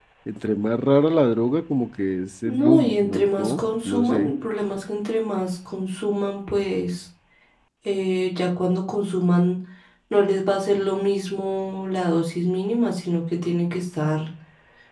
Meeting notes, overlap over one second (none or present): present